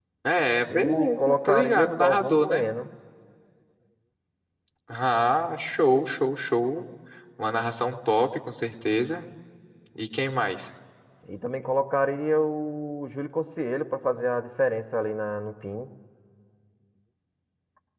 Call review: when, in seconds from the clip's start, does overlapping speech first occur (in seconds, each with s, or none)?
0.7 s